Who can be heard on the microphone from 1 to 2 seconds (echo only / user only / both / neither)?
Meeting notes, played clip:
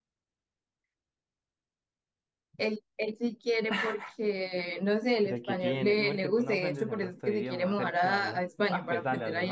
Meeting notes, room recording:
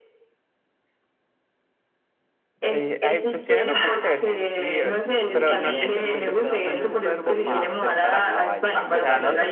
neither